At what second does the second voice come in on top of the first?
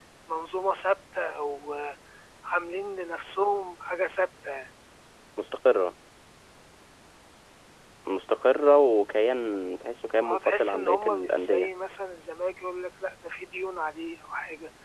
10.2 s

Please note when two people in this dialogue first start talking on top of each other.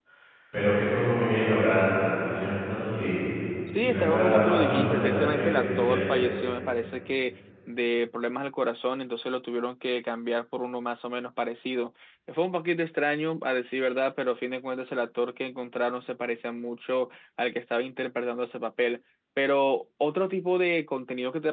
3.8 s

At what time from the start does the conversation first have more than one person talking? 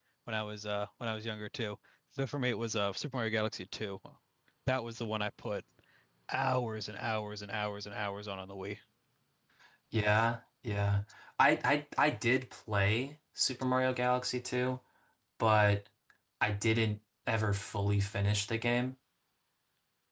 none

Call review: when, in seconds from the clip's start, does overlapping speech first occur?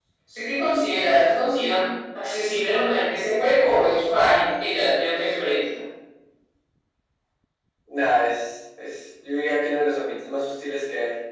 none

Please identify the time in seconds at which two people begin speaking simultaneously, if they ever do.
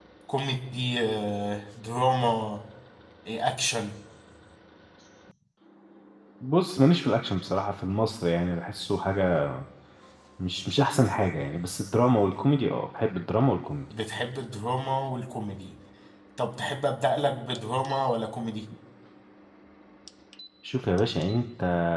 none

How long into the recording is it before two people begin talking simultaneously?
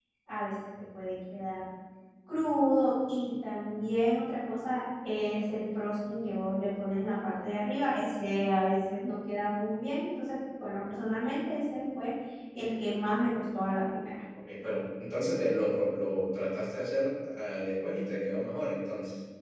none

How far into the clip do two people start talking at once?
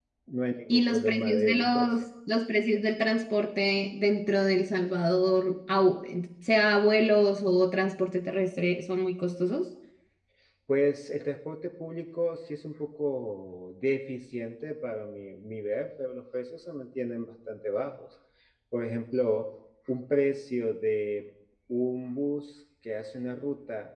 0.7 s

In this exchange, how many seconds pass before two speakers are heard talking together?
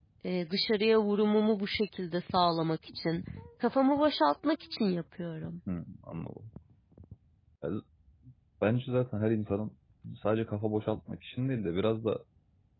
none

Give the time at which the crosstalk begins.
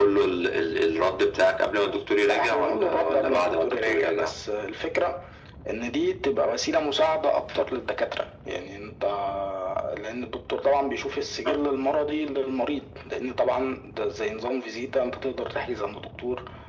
2.2 s

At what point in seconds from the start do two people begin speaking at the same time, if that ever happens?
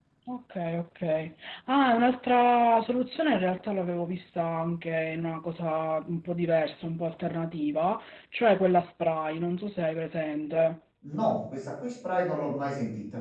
none

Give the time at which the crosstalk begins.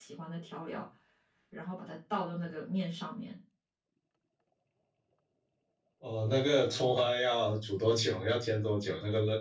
none

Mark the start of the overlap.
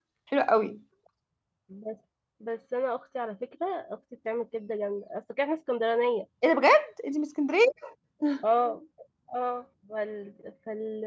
none

